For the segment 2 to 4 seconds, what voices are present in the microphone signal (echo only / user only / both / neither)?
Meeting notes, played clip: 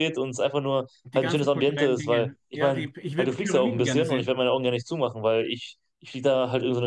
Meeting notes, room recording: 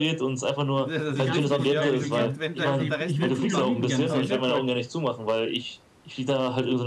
both